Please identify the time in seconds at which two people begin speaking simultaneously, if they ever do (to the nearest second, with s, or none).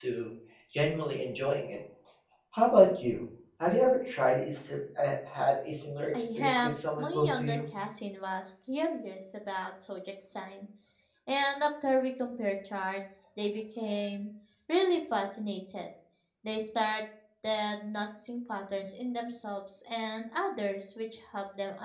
6 s